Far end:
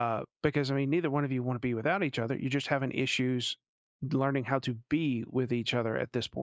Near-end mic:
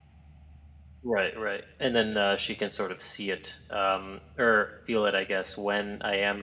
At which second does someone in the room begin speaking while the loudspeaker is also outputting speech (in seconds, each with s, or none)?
1.0 s